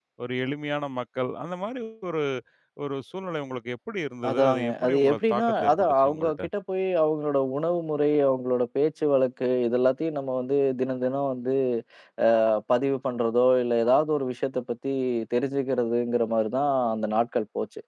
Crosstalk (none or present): present